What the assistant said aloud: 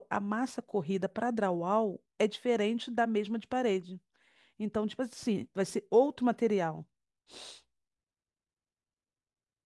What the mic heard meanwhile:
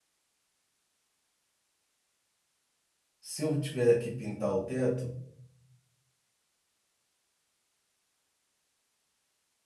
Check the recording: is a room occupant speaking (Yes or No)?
Yes